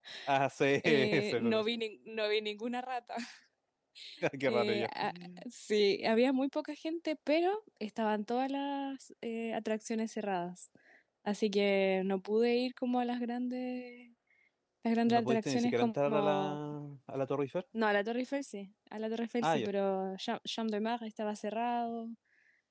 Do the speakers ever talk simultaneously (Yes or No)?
Yes